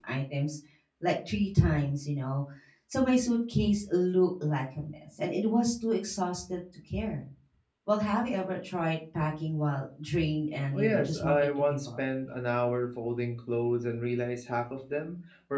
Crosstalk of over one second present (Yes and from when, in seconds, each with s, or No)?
Yes, from 10.7 s